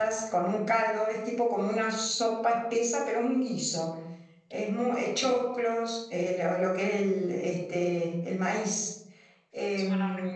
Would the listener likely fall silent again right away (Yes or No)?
Yes